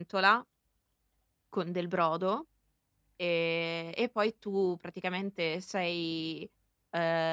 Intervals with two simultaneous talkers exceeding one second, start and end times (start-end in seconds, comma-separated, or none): none